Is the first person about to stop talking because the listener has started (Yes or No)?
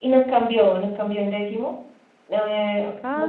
No